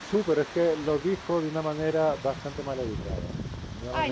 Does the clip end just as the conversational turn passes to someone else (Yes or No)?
Yes